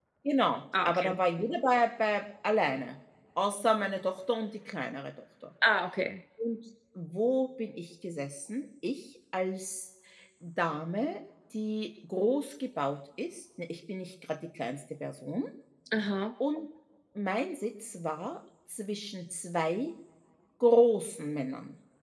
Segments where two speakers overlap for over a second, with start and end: none

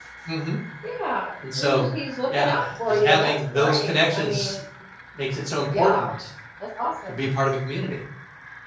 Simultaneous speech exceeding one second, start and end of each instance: 2.3-4.5

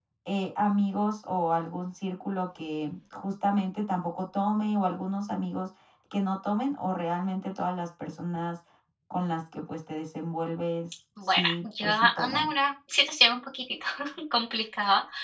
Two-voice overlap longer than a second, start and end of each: 11.2-12.5

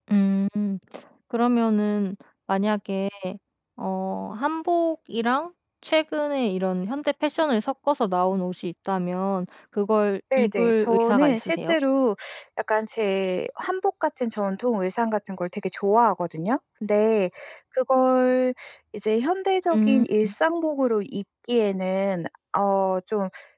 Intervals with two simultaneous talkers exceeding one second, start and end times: 10.4-11.8

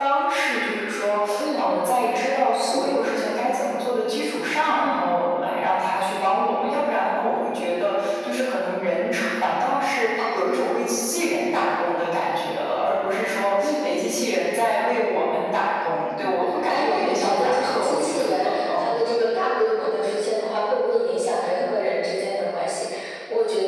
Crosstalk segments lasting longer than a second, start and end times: 16.2-18.9

